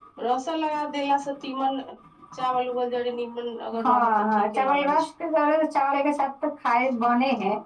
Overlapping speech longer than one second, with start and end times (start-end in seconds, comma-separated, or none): 3.8-5.0